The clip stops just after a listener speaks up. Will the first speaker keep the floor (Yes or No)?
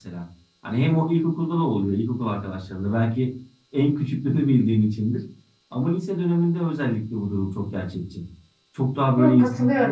No